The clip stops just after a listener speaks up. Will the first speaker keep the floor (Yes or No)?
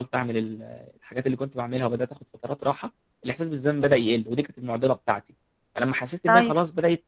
Yes